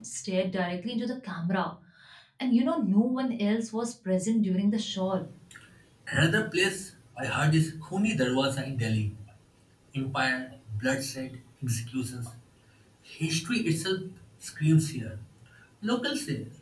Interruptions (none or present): none